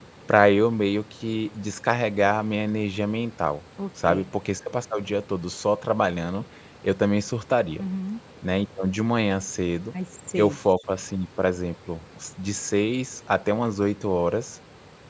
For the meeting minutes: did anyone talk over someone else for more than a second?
No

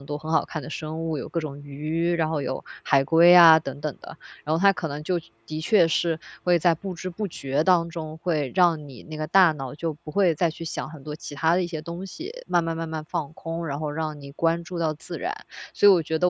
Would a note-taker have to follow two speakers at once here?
No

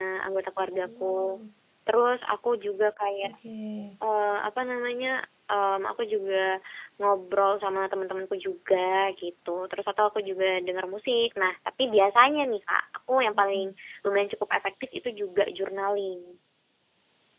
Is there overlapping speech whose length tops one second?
No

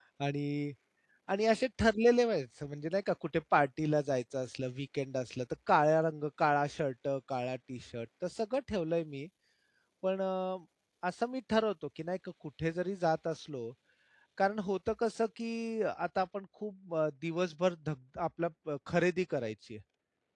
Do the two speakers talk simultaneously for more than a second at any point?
No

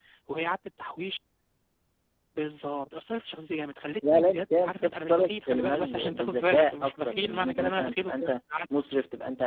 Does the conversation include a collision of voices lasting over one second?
Yes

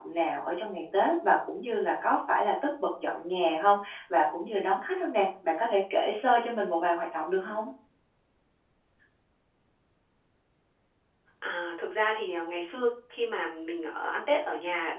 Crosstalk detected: No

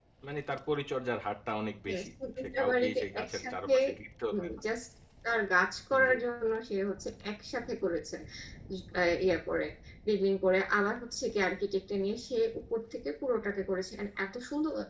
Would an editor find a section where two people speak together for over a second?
Yes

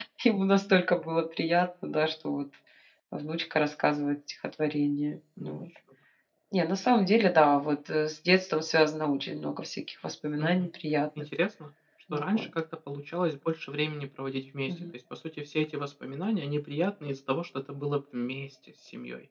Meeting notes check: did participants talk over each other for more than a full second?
No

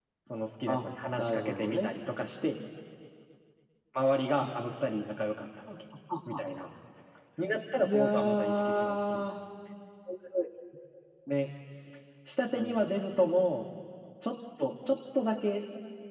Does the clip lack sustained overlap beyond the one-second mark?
No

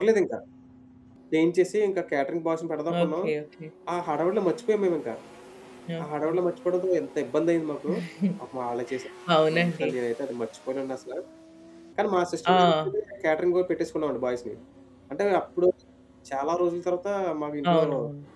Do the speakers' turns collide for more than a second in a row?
No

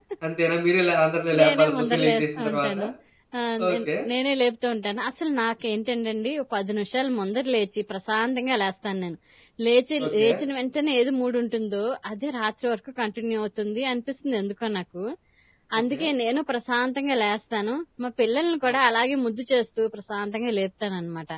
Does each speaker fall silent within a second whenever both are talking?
No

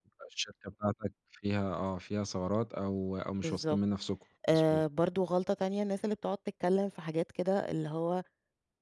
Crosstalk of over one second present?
No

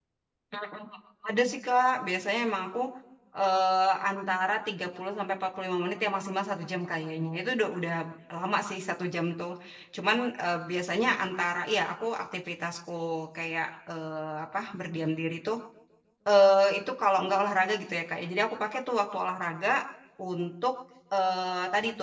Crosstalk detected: No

